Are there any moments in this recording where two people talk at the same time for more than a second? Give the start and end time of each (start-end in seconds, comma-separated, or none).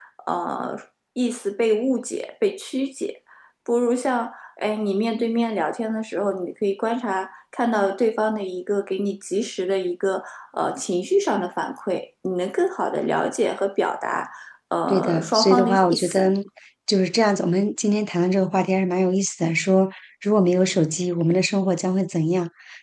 14.9-16.3